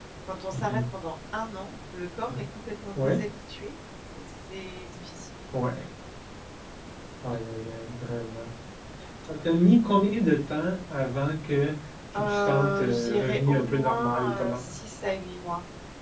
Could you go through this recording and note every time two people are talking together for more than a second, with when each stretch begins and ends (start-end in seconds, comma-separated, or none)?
12.2-14.7